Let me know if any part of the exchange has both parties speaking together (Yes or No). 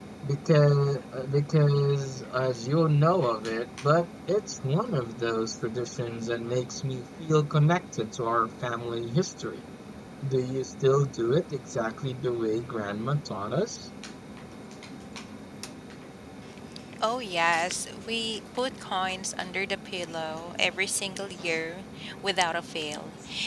No